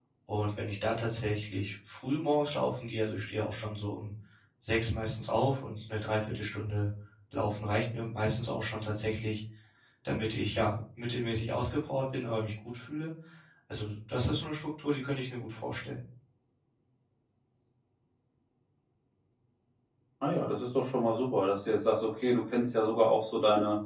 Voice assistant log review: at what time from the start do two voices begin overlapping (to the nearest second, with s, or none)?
none